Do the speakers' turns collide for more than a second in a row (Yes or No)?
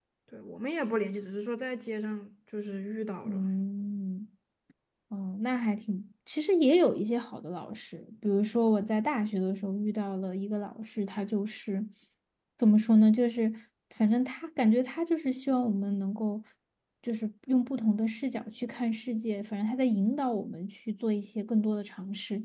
No